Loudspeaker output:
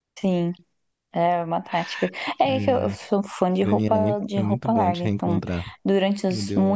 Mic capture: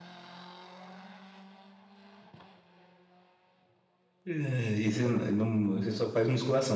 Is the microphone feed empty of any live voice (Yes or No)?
No